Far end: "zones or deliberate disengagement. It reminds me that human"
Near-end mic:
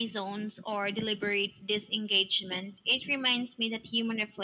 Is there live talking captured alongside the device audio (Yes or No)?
No